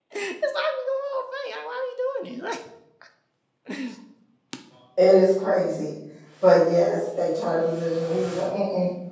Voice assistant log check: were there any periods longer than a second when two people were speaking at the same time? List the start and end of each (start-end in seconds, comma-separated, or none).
none